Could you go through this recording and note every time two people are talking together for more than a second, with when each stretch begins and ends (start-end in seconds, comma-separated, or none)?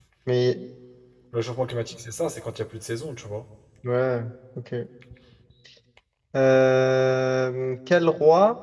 none